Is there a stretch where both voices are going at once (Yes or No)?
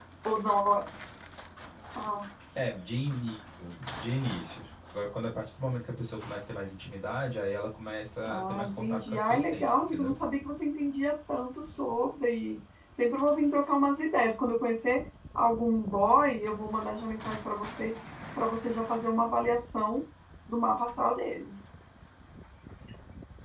Yes